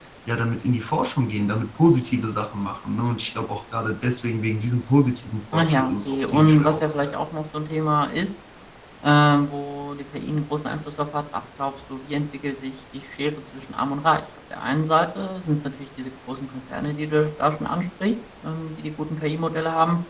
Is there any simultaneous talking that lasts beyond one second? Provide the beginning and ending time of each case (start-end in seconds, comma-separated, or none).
5.5-7.2